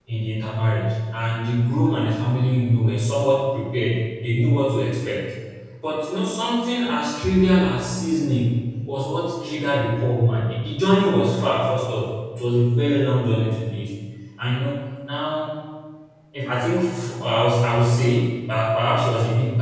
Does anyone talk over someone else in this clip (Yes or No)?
No